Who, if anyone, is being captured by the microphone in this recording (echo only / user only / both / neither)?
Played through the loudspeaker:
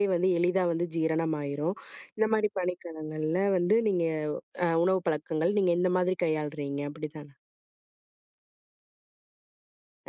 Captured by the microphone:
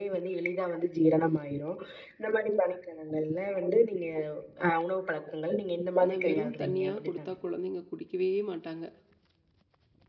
both